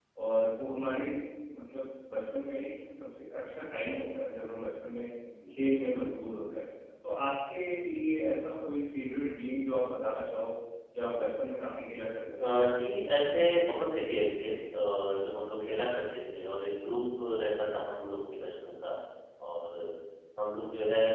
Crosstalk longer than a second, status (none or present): none